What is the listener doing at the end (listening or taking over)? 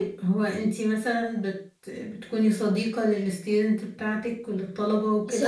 taking over